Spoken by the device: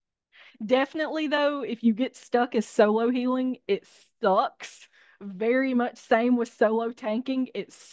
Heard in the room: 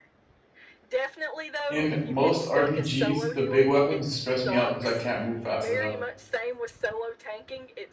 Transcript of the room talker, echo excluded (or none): in most RPGs, the big weapons stress me out because I can't move fast enough.